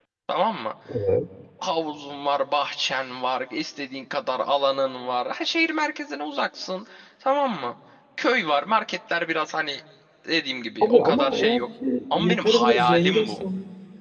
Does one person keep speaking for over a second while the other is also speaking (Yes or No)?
Yes